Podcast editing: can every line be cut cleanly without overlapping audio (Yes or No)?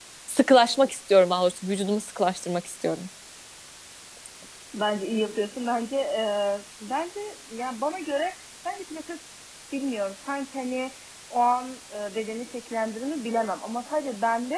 Yes